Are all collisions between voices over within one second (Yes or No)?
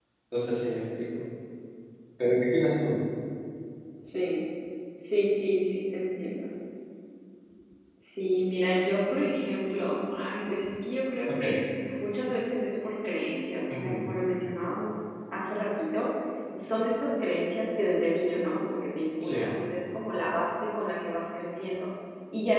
Yes